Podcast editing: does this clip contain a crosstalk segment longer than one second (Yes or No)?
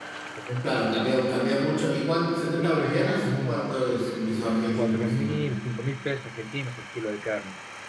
Yes